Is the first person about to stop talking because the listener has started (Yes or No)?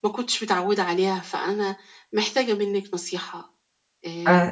Yes